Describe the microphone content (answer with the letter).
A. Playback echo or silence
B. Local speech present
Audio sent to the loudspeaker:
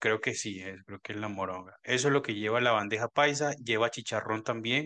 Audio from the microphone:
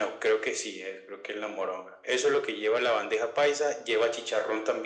A